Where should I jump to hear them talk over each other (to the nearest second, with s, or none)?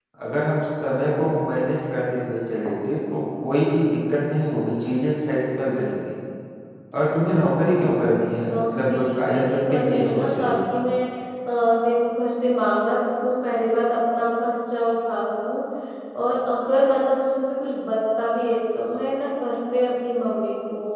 8 s